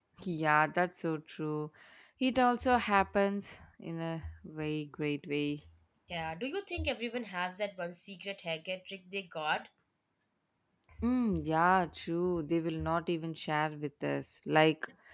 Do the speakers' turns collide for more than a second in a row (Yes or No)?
No